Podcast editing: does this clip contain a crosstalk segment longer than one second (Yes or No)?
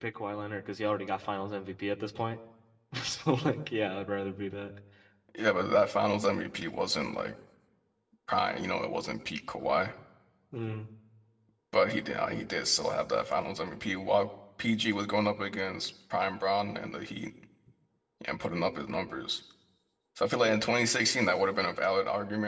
No